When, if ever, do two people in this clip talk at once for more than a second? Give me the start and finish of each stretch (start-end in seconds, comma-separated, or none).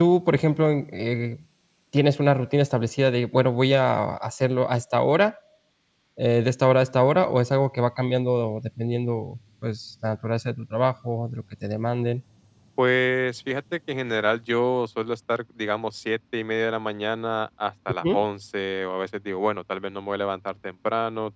none